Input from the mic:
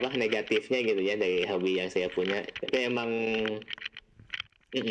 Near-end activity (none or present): none